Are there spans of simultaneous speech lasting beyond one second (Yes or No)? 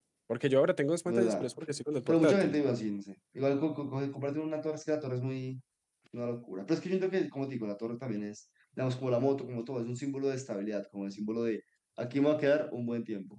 No